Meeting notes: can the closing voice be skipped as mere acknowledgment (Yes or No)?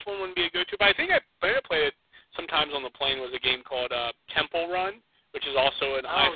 Yes